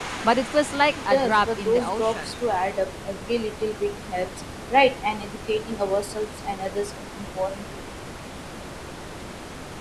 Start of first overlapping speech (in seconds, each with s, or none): 0.9 s